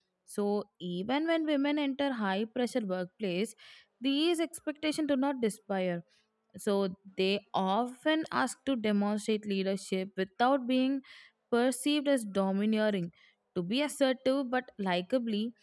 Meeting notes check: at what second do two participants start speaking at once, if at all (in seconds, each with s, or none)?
none